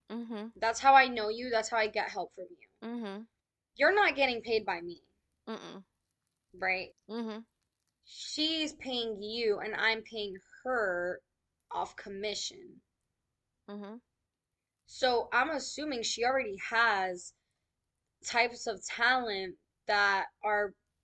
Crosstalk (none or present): none